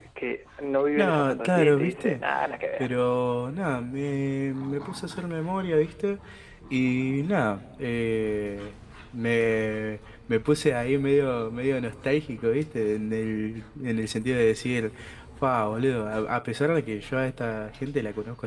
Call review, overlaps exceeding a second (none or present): present